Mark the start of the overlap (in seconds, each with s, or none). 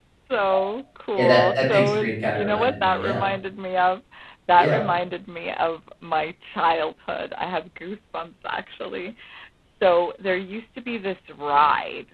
1.2 s